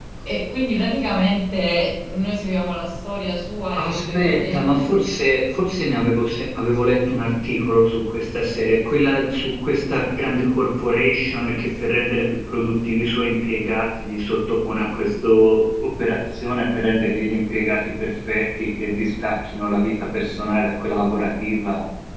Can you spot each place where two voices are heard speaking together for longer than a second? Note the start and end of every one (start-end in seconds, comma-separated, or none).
3.8-5.0